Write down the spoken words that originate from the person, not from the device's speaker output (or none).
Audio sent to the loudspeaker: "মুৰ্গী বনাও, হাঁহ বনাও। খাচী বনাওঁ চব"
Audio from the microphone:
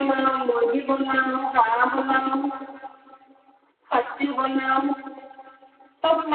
none